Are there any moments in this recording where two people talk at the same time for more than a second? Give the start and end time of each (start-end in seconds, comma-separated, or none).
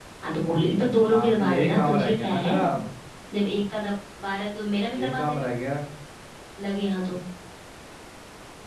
1.1-2.5